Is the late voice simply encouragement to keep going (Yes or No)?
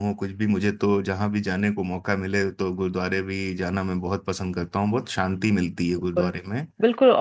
No